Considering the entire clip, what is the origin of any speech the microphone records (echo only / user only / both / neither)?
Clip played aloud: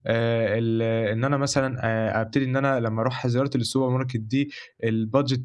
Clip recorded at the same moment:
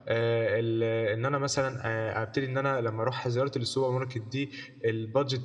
echo only